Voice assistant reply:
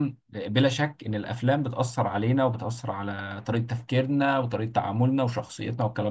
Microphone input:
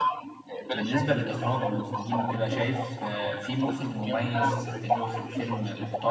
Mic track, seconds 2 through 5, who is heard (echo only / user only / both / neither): both